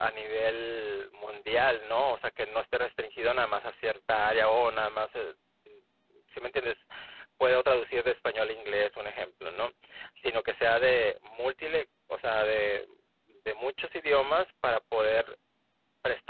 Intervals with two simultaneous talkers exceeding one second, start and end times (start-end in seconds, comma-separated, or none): none